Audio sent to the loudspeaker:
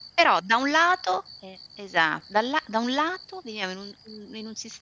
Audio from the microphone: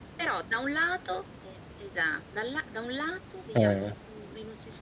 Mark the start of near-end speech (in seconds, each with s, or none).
3.5 s